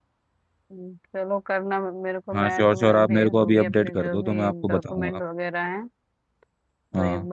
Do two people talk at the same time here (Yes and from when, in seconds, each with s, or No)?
Yes, from 2.3 s